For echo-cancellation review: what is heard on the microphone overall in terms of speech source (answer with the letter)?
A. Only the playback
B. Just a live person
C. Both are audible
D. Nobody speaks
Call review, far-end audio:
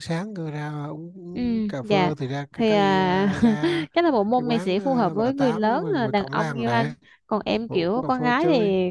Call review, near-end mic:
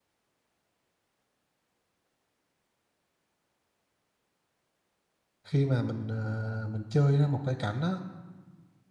B